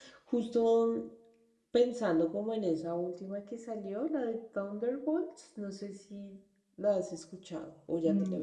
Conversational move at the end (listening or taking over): taking over